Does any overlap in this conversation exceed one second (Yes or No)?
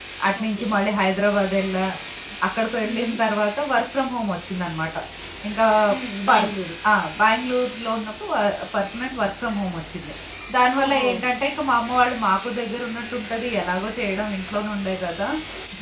No